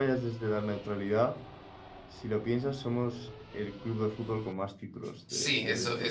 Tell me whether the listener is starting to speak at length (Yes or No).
Yes